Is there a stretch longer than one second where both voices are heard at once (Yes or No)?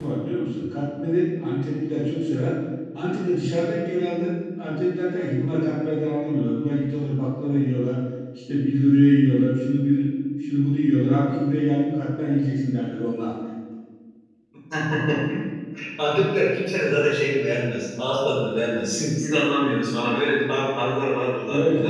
No